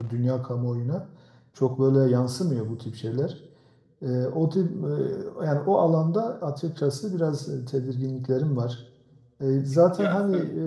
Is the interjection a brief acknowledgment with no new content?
Yes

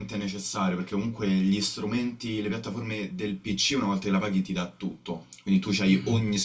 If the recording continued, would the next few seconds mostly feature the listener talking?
No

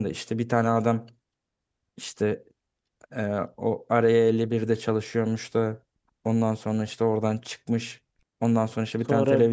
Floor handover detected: No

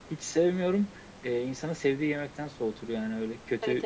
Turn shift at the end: Yes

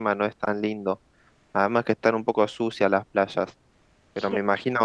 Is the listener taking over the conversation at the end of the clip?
No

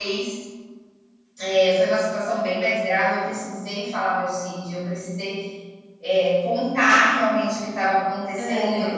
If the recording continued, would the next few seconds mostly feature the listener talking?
No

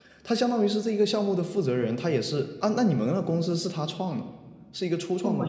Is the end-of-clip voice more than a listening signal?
Yes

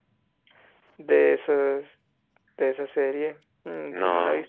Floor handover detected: No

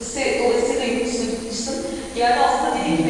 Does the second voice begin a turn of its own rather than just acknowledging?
No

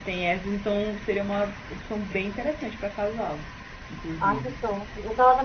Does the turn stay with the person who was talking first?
No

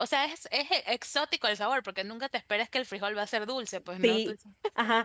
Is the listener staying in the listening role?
No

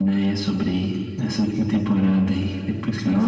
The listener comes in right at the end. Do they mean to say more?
Yes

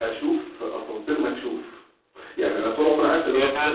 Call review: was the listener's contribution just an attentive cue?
Yes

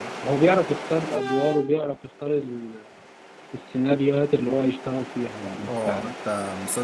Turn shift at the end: Yes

